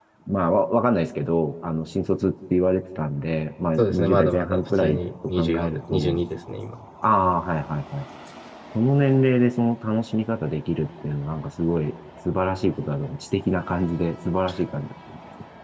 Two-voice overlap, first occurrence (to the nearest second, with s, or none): 4 s